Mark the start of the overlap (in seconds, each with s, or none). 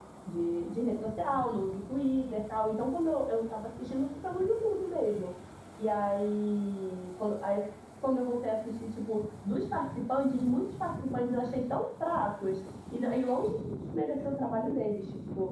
none